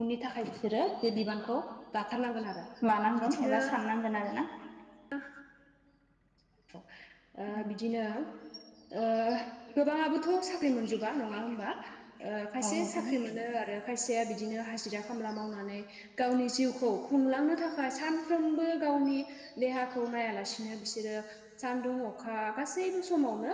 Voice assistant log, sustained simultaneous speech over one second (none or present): none